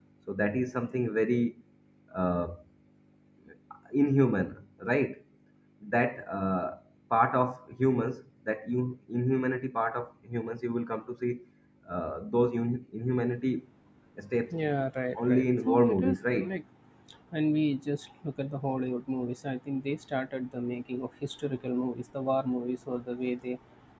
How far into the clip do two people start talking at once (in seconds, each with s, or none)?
15.2 s